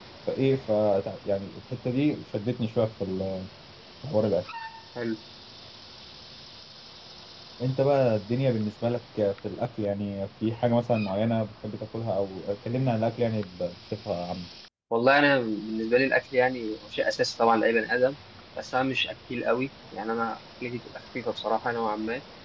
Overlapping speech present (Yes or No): No